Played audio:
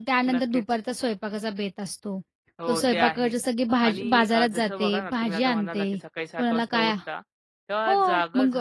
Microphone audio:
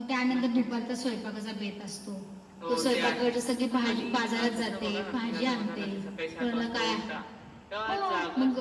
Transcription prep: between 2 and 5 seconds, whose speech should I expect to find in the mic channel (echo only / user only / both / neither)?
echo only